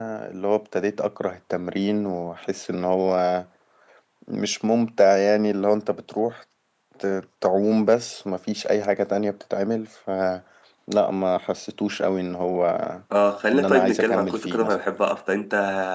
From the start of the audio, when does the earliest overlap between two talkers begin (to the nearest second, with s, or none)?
14 s